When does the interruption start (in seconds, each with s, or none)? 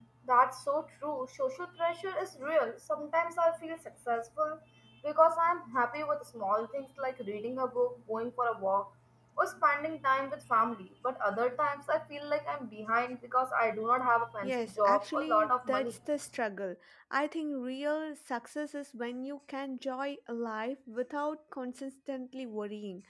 14.4 s